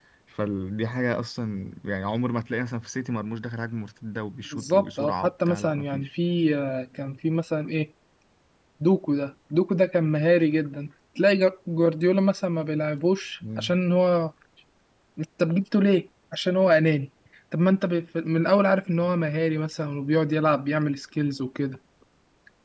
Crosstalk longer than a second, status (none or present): present